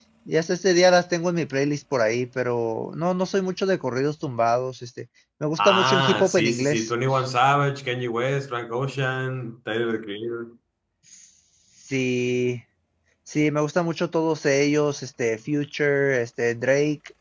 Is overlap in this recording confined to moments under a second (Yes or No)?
No